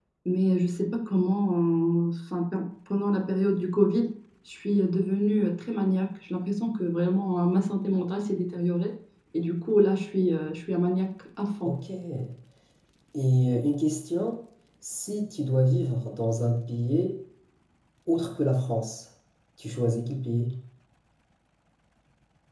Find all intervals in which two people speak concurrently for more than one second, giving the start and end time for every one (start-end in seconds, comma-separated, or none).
none